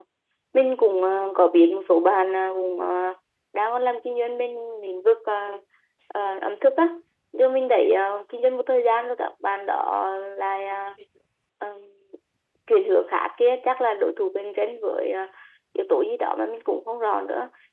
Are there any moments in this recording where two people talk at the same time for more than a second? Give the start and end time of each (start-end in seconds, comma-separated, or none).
none